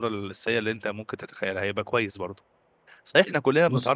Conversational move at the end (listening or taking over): listening